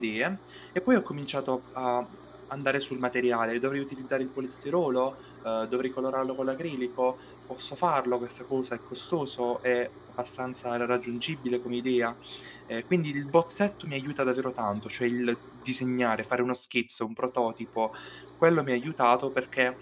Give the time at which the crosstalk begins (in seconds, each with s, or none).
none